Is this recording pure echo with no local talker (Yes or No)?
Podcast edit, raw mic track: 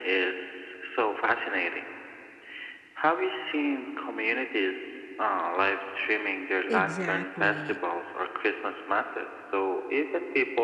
No